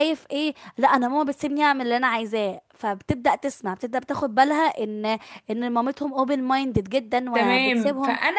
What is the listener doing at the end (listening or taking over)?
taking over